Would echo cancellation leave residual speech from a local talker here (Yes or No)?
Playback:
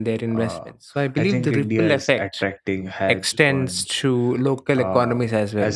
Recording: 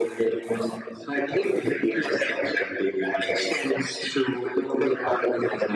No